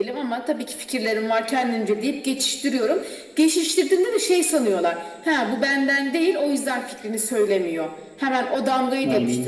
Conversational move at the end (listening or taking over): listening